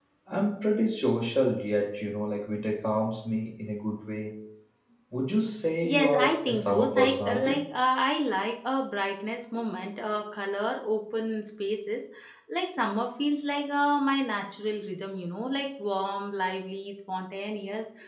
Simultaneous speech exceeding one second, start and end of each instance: 5.8-7.6

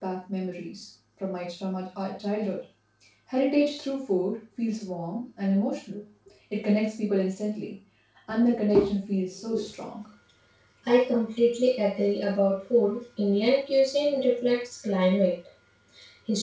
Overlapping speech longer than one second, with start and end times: none

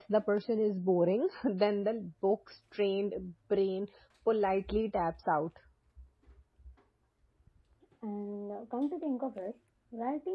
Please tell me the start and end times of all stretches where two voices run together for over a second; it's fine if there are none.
none

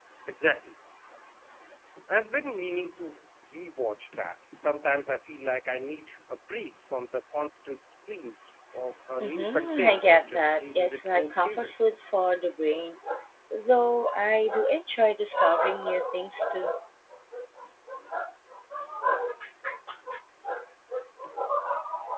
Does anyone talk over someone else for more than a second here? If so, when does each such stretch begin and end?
9.2-12.0

